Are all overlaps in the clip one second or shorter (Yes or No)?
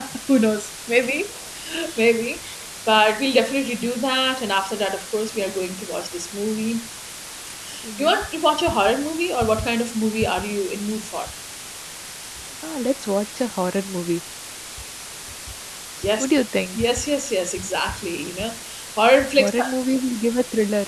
Yes